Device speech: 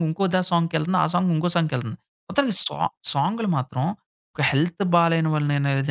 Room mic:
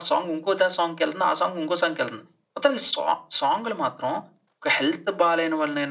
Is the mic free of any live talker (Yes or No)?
Yes